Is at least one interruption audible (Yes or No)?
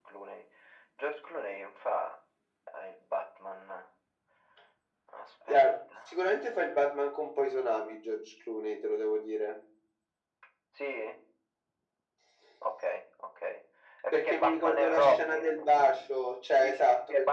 Yes